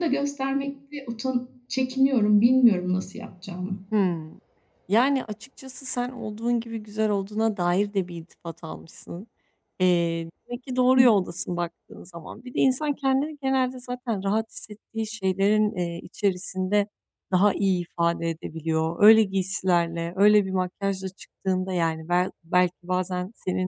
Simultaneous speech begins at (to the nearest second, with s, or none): none